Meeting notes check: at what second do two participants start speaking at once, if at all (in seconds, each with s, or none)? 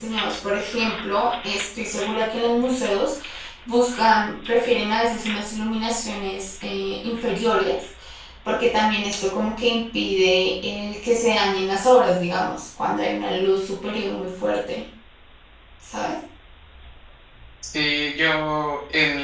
none